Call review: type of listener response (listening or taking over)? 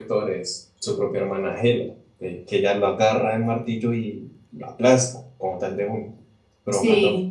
listening